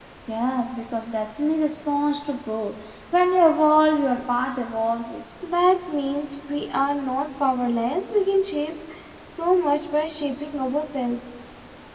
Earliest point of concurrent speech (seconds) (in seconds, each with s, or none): none